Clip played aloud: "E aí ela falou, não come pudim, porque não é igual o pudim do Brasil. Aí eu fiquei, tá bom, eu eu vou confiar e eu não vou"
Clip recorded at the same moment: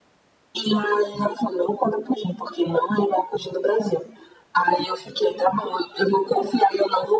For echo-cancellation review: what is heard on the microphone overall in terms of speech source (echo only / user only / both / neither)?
echo only